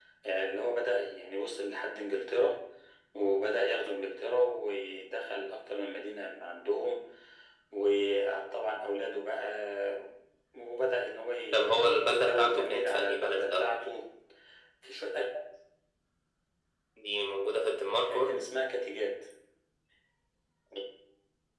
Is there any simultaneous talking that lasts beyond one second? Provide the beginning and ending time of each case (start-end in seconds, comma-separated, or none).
11.5-13.7